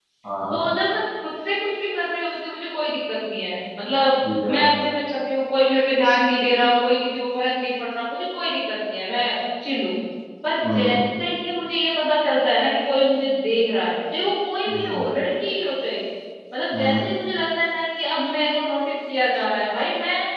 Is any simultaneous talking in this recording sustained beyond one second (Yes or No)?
No